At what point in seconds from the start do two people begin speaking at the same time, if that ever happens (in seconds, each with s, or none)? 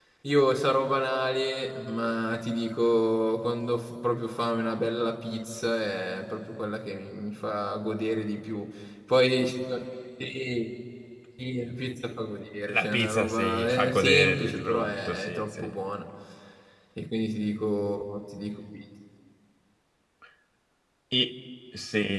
12.7 s